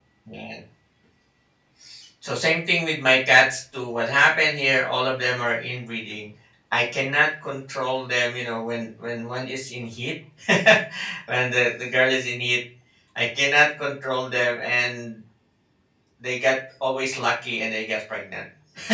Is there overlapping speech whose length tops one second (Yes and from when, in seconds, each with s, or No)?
No